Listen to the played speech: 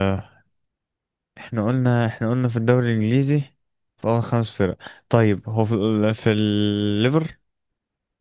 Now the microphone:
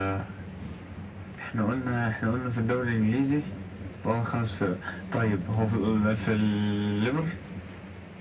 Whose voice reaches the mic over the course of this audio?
echo only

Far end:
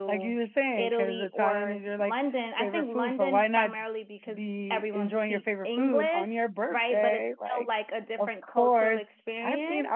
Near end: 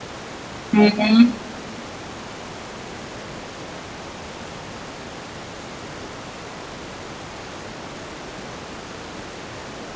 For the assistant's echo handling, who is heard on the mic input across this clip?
user only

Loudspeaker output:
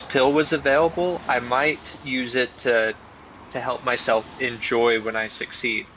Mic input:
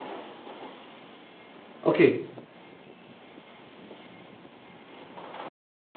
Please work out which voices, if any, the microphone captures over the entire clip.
user only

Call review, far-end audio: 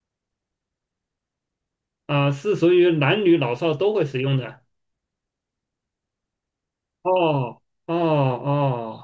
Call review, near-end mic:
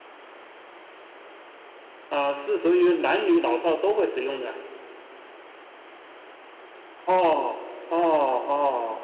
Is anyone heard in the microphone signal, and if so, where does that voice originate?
echo only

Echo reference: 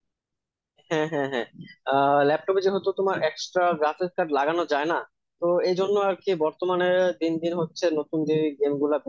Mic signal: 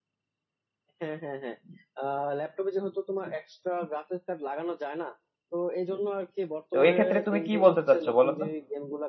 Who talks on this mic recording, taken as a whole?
both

